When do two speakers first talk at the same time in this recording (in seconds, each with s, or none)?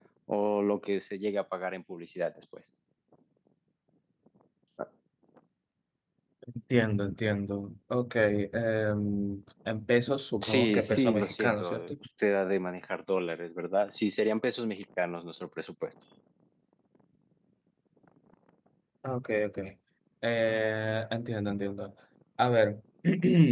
10.4 s